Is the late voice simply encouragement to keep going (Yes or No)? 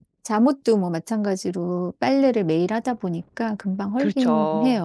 No